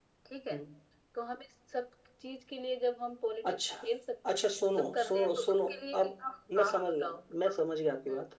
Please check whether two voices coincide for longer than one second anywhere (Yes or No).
Yes